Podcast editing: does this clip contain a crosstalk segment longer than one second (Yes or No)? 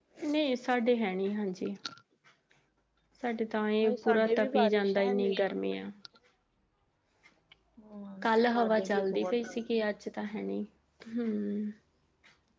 Yes